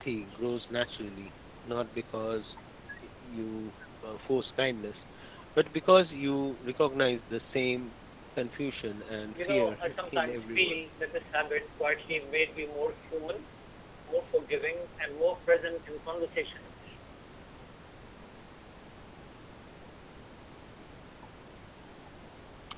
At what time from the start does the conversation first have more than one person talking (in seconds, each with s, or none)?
9.3 s